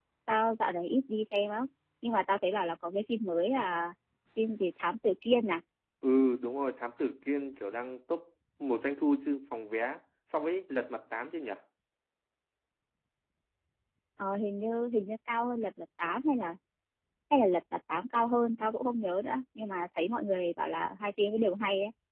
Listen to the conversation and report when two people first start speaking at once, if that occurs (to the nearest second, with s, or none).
none